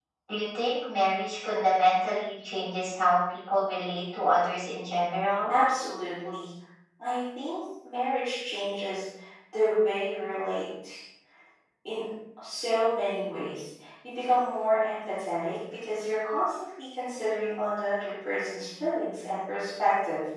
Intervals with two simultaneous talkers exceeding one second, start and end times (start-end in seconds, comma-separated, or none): none